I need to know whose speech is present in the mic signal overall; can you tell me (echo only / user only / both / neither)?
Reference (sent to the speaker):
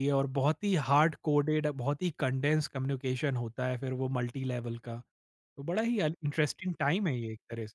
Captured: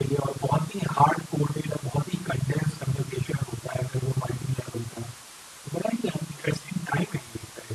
echo only